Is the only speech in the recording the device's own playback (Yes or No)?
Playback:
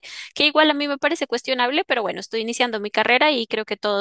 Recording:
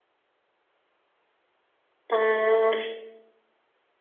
No